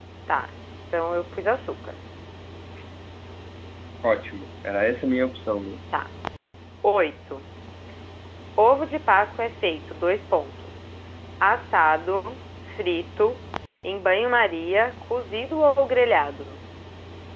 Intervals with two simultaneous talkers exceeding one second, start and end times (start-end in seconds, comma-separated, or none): none